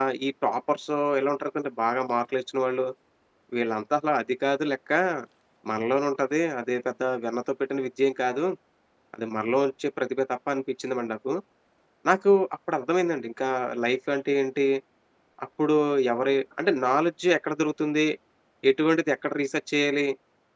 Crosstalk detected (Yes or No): No